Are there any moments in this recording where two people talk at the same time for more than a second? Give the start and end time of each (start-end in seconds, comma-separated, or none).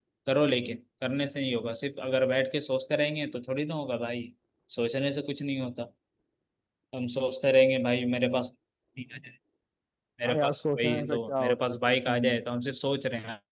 10.2-12.4